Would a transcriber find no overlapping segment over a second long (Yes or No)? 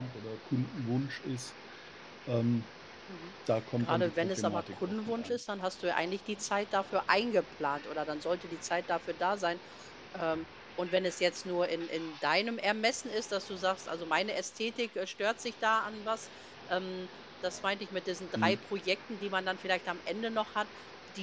No